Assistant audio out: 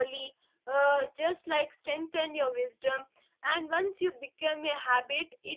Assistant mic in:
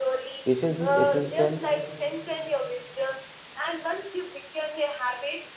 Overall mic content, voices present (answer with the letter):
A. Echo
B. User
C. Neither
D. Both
D